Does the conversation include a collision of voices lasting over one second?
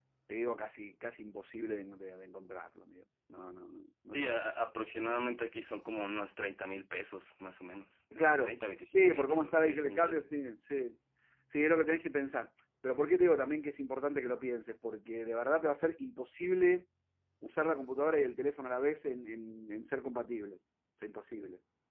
Yes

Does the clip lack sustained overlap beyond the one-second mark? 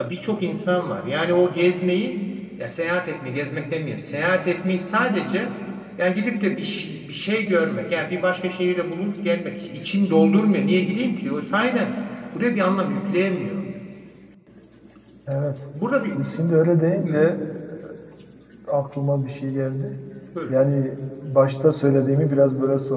Yes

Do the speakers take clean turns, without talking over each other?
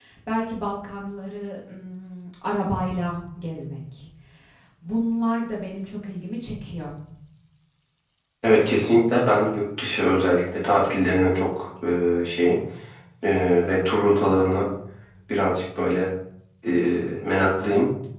Yes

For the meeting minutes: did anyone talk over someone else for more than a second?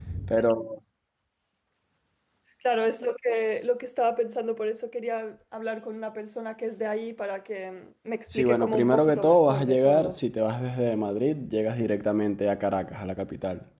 Yes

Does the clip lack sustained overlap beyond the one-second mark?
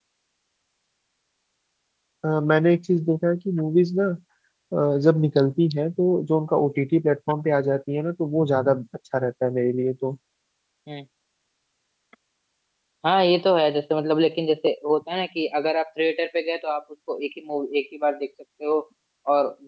Yes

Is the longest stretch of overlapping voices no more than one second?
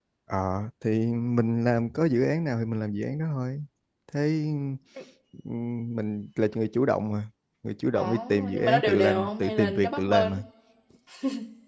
No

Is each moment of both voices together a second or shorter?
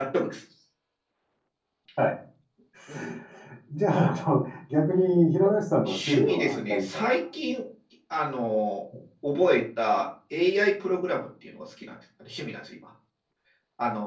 No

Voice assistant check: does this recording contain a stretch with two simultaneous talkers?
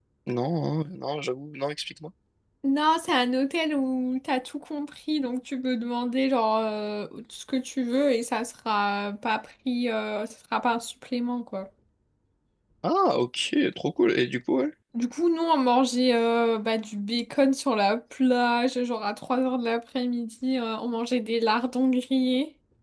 No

